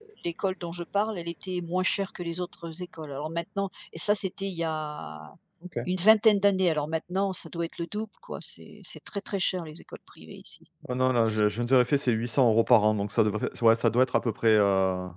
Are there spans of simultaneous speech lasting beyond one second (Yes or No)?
No